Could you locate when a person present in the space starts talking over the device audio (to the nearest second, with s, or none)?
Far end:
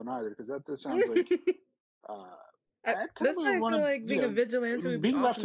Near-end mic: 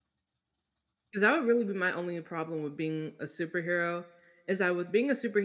1 s